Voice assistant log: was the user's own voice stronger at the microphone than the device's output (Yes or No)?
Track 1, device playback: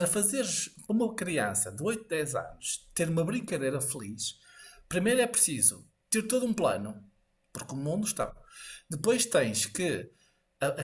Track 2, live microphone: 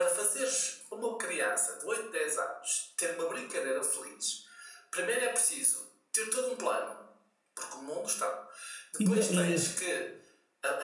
Yes